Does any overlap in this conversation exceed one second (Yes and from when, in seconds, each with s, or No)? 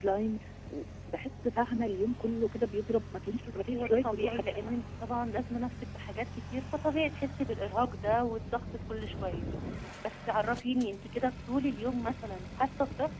Yes, from 3.4 s